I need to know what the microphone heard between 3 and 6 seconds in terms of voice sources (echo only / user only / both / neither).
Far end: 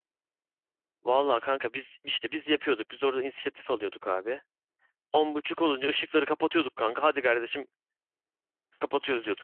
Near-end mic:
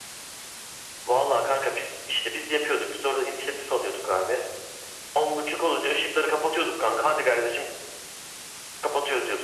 echo only